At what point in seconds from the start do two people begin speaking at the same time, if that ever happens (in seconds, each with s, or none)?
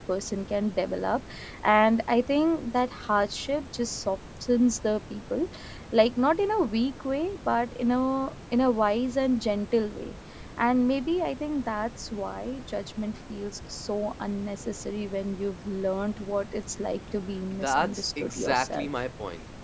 17.5 s